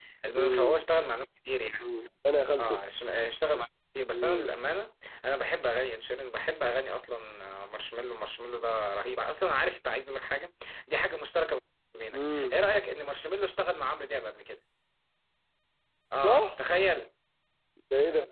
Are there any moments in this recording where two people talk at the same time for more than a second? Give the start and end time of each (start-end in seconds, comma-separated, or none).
none